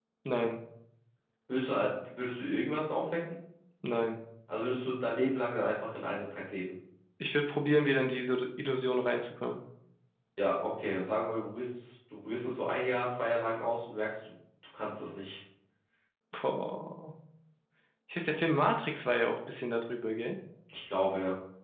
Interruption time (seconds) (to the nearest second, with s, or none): none